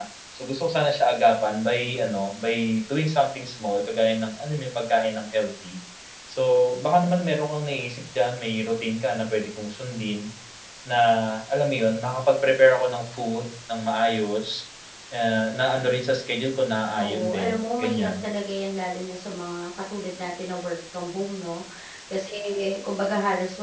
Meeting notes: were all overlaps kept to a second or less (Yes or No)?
No